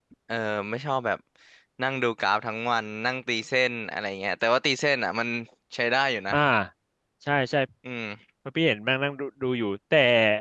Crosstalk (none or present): none